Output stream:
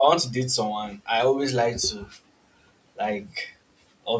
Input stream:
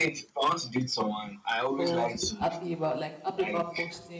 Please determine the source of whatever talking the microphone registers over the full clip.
both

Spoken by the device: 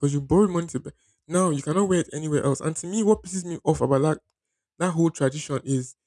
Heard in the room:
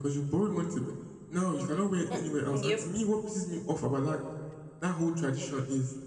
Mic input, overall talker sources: both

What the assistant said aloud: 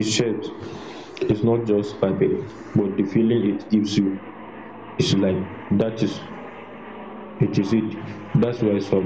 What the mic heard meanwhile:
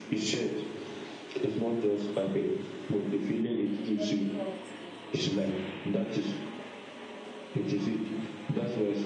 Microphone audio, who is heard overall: both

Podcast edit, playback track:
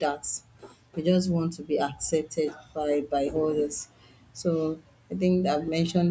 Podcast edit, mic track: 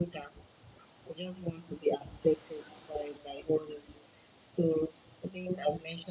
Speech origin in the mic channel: echo only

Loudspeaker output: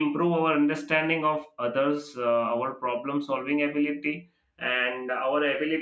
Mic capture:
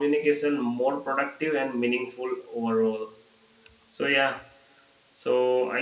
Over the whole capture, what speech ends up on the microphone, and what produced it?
user only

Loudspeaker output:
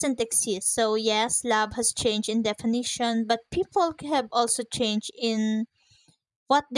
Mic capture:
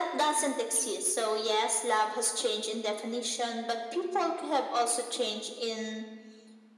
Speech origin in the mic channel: echo only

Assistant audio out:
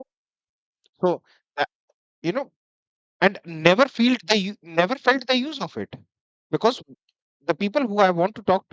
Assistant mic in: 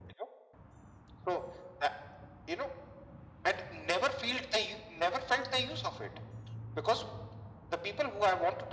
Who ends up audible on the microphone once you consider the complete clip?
echo only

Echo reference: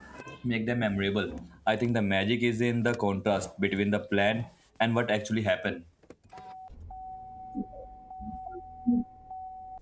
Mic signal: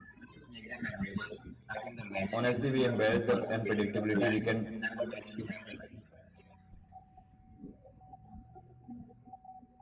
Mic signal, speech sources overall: both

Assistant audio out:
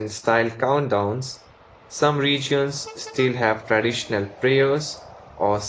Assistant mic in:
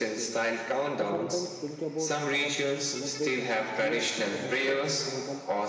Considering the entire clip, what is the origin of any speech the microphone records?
both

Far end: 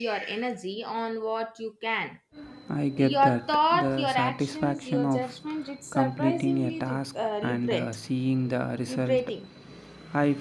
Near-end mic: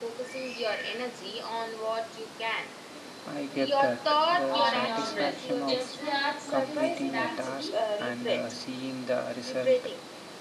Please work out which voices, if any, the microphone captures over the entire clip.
both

